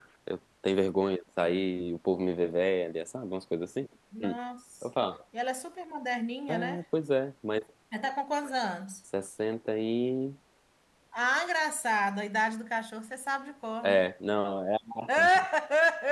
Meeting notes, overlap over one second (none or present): none